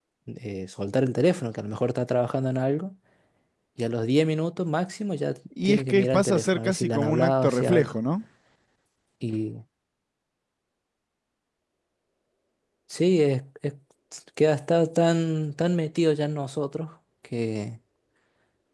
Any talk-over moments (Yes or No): Yes